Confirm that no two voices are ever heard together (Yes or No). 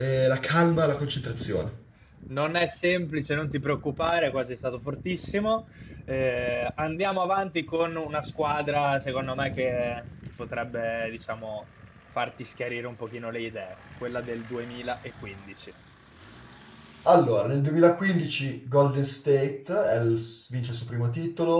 Yes